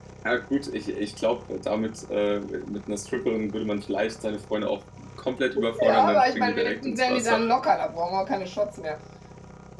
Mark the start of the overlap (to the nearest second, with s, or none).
6 s